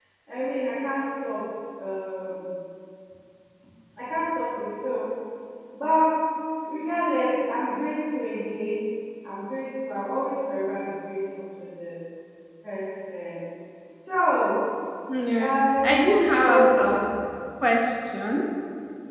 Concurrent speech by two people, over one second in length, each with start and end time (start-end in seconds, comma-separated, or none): 15.5-17.0